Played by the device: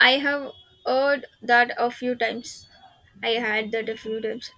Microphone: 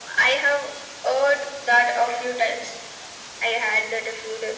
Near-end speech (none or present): none